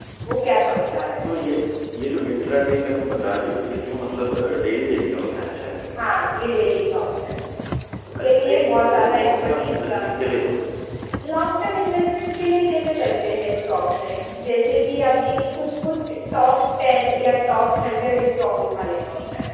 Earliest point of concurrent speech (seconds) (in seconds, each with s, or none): 8.2 s